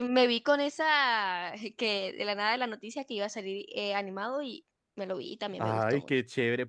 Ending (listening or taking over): taking over